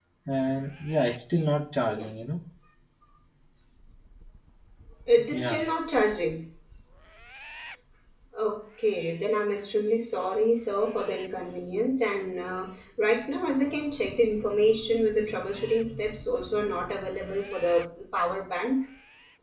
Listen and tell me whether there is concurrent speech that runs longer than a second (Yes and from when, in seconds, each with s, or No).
No